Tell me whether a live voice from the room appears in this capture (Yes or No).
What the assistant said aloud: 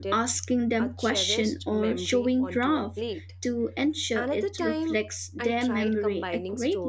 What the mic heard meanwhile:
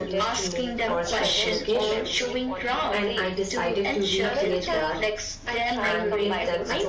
Yes